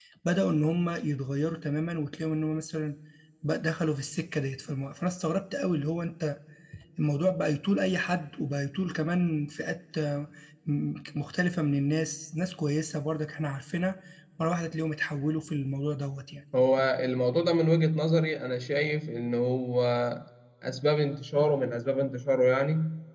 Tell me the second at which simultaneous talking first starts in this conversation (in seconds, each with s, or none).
none